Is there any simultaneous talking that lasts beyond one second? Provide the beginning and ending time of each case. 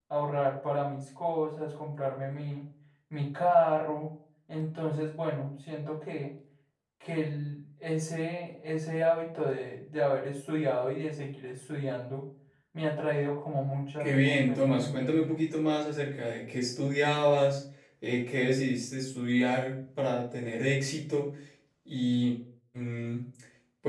14.0-15.4

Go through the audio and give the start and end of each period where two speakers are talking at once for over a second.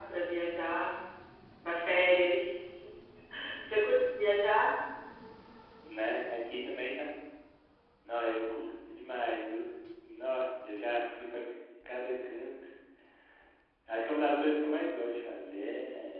none

